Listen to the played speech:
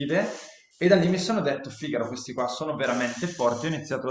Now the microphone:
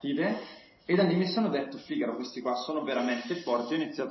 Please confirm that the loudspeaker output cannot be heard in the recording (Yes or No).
No